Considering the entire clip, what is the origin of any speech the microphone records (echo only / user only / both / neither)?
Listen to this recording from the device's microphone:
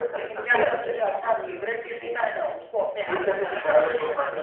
both